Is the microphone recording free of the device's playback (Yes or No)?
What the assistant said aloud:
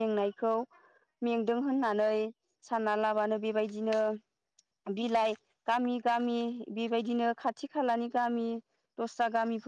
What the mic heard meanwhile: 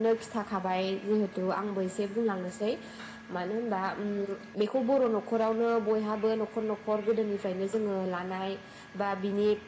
Yes